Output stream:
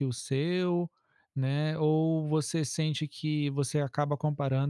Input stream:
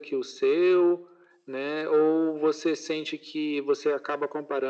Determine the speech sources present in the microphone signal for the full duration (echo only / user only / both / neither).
echo only